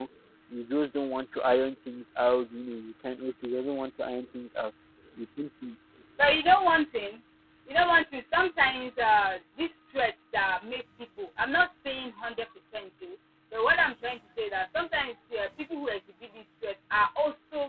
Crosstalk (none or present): none